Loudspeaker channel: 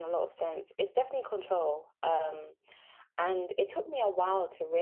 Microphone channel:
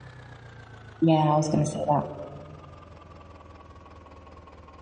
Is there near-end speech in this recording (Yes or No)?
Yes